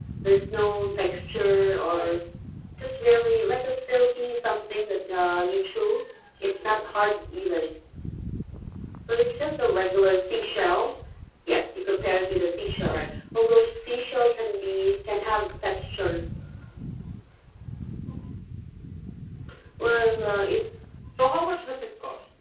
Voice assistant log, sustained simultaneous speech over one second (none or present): none